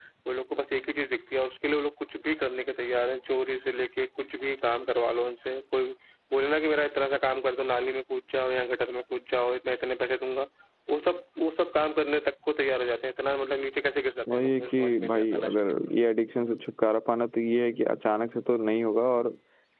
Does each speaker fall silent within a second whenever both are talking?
No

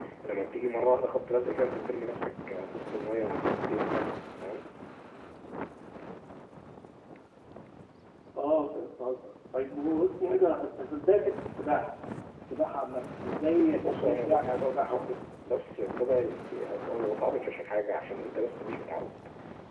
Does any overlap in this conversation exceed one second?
Yes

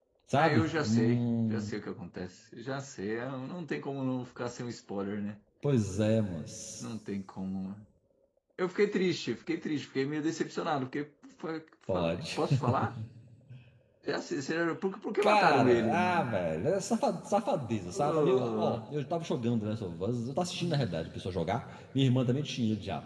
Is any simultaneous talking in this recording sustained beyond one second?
Yes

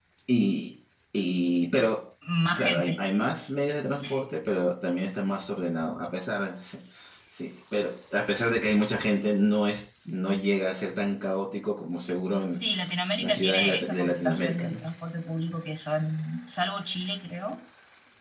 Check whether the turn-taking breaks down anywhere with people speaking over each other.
Yes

